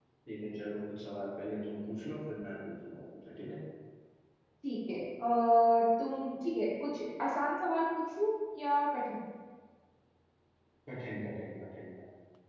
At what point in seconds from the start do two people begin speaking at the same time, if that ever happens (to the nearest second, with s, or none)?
none